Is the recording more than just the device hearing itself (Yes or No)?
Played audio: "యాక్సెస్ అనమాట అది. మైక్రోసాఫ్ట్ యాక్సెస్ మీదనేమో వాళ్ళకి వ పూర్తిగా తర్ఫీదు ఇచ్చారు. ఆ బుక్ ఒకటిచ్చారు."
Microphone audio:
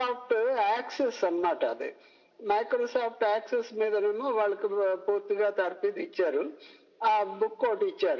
No